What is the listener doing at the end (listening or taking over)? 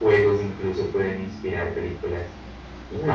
taking over